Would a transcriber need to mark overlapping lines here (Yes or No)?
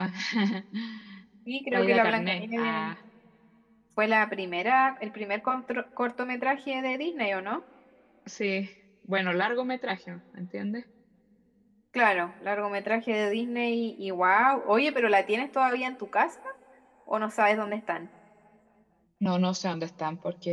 Yes